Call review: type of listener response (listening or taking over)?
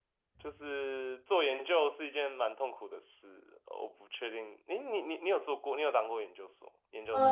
taking over